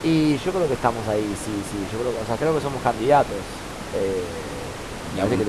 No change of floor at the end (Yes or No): Yes